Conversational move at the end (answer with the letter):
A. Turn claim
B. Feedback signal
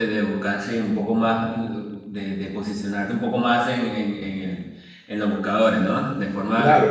A